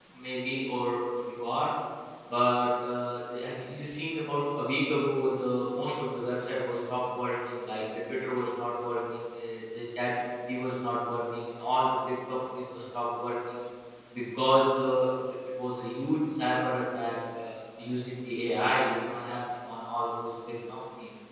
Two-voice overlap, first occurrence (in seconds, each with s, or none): none